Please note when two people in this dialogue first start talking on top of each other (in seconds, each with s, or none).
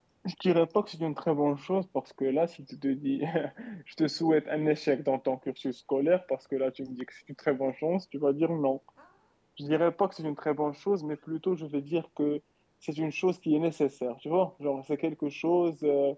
none